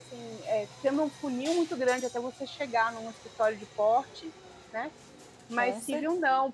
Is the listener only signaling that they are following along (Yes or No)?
Yes